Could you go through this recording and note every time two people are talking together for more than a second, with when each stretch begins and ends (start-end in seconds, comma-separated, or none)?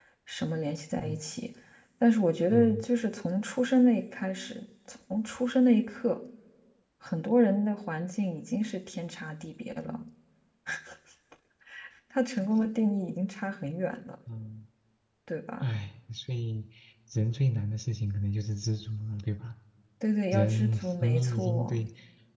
20.3-21.8